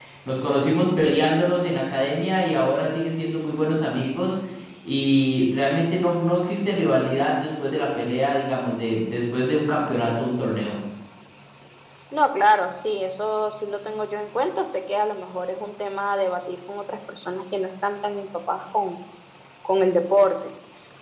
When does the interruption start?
none

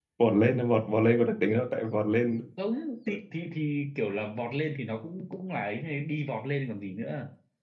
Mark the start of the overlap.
none

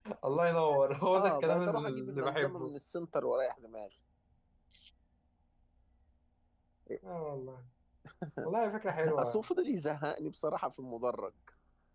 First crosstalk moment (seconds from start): 1.1 s

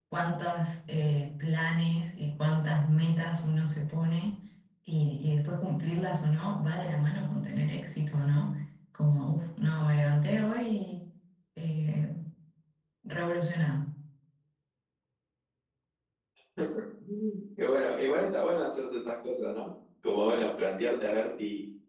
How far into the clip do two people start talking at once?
none

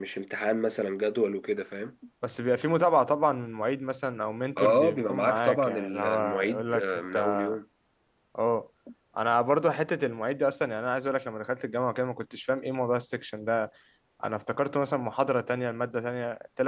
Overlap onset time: 4.6 s

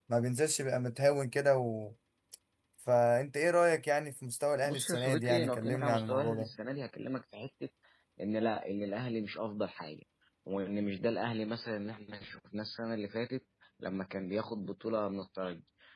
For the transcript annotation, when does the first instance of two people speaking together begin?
4.6 s

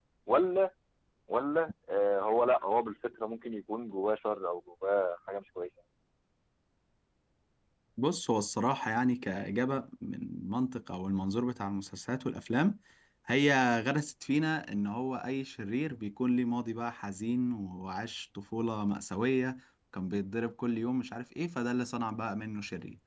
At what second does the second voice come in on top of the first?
none

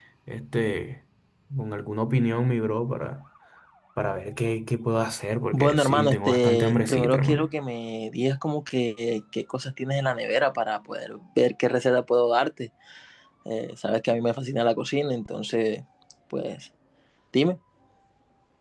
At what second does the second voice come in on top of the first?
5.5 s

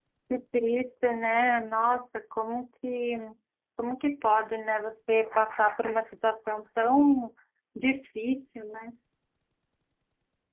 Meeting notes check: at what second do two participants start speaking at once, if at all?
none

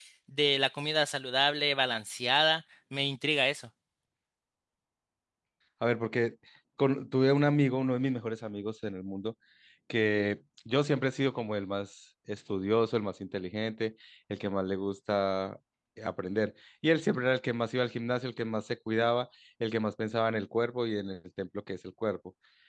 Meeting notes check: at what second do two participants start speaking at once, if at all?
none

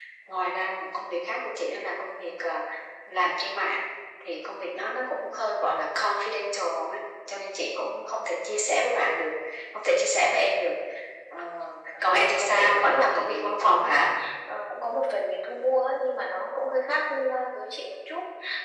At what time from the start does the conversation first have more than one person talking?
12.0 s

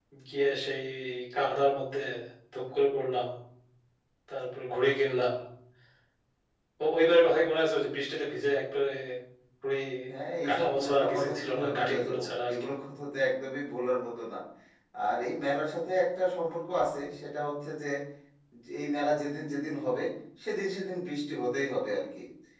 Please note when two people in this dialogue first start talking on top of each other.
10.5 s

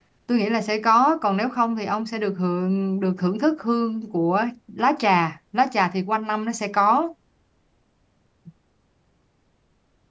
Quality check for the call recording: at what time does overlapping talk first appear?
none

